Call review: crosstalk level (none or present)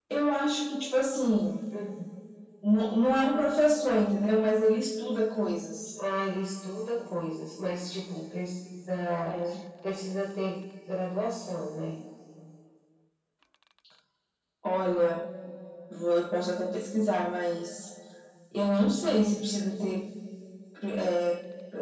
none